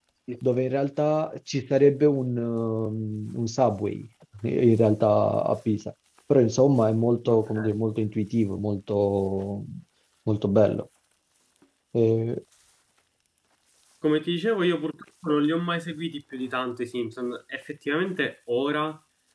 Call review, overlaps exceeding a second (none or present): none